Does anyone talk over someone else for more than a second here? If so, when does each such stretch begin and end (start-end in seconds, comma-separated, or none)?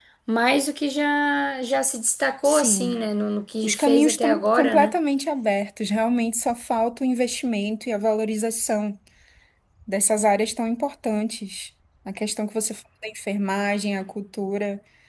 3.6-4.9